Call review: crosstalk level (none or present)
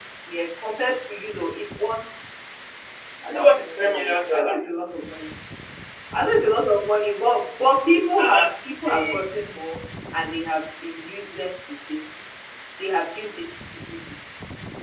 present